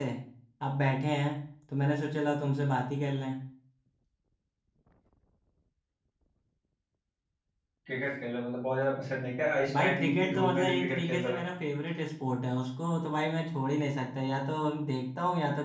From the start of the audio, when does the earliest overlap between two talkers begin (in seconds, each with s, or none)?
9.7 s